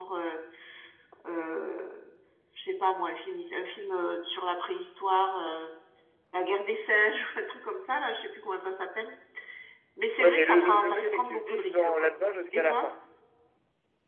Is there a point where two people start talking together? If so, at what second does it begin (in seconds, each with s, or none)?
10.2 s